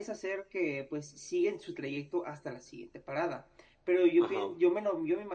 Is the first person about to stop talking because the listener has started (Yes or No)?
No